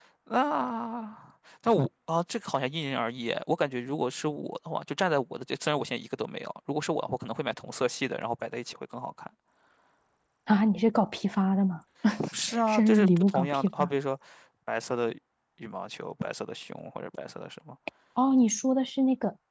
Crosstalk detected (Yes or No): Yes